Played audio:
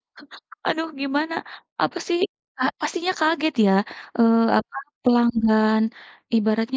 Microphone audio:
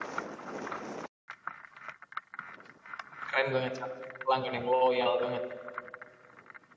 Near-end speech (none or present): present